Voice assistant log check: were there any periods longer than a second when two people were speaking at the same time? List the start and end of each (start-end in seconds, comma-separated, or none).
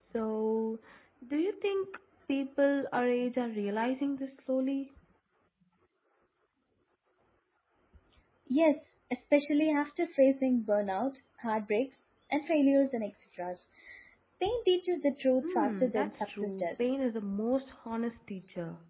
15.4-17.0